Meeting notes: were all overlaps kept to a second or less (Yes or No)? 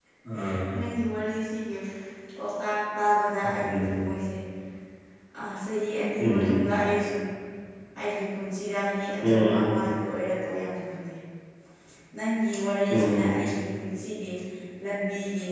Yes